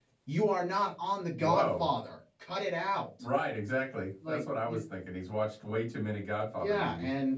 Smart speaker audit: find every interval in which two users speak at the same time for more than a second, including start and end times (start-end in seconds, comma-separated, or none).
none